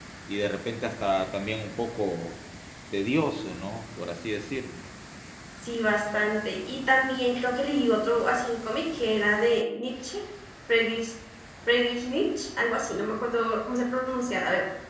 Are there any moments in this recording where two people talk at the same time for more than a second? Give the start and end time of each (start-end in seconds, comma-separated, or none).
none